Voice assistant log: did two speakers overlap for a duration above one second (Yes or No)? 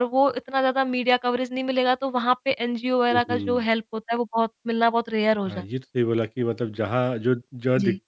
No